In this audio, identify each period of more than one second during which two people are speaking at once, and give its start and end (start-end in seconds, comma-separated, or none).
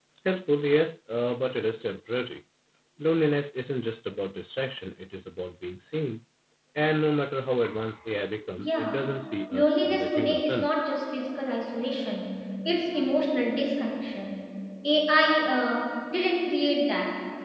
9.5-10.8